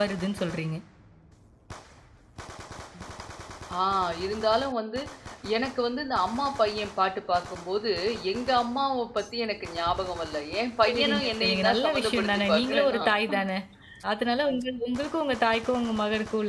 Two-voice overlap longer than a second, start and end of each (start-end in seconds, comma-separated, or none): 10.8-13.1